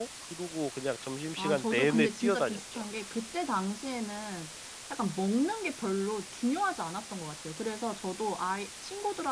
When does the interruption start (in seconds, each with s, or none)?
1.4 s